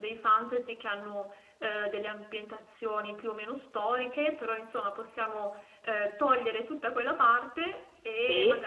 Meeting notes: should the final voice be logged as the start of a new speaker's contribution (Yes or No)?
No